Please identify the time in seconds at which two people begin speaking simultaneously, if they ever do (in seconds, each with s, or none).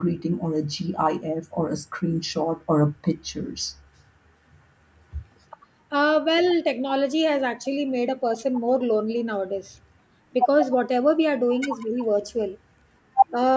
none